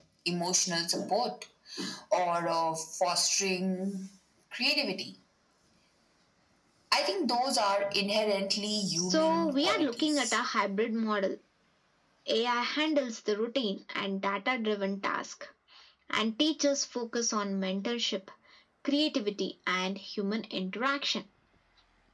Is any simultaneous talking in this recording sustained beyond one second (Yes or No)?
Yes